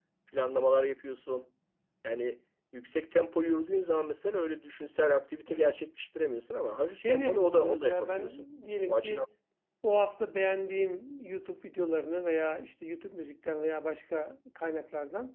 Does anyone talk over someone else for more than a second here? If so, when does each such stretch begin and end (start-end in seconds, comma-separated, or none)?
7.0-8.4